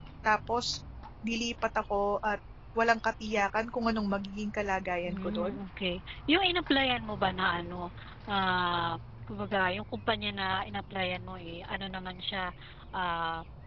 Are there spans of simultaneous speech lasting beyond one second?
No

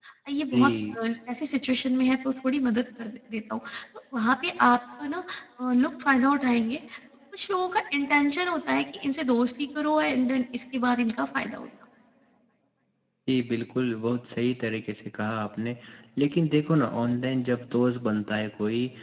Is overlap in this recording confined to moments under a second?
Yes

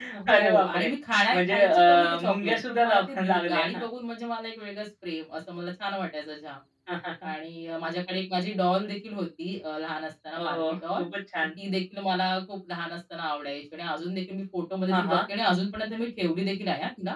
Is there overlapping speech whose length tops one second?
Yes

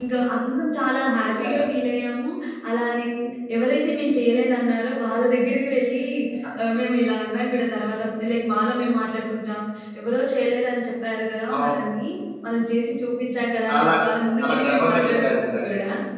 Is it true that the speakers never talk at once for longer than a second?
No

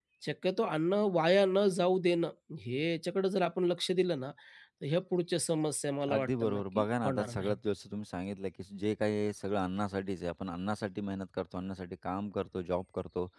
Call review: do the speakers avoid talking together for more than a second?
No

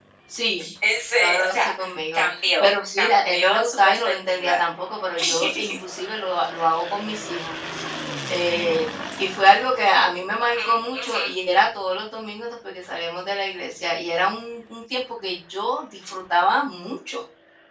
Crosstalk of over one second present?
Yes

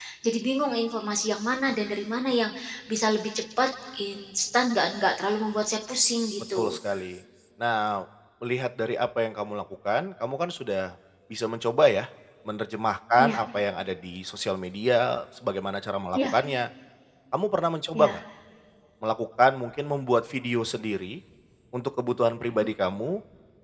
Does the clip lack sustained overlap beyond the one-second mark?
Yes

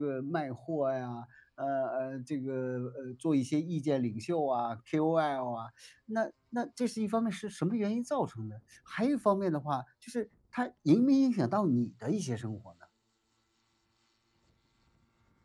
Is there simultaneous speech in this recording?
No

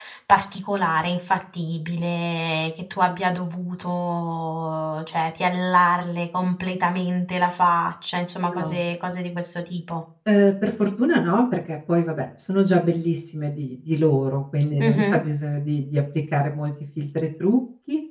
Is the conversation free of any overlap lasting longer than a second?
Yes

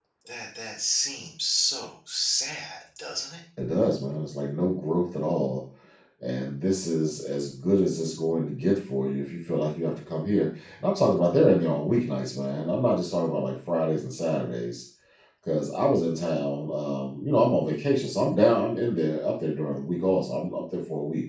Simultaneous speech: No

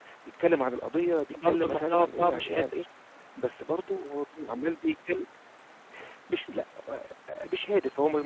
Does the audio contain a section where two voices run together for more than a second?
Yes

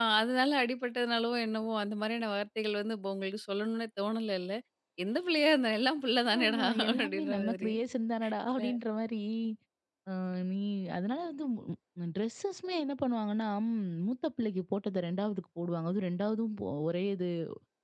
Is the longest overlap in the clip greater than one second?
Yes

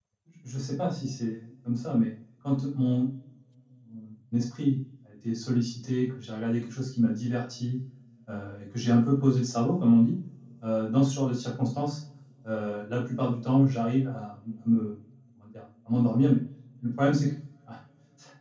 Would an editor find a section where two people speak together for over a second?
No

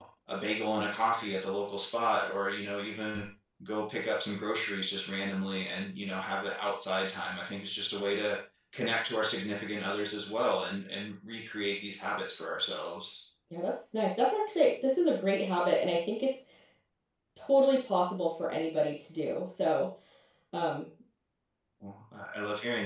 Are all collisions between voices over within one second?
Yes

